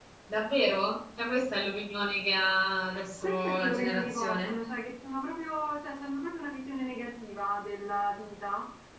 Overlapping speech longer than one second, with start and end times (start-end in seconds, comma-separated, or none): 3.2-4.6